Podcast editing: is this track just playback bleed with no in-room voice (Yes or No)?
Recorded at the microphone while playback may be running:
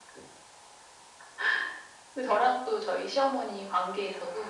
Yes